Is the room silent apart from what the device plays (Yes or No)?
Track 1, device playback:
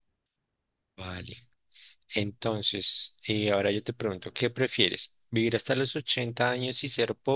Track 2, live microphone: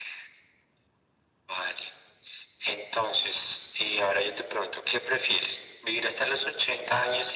Yes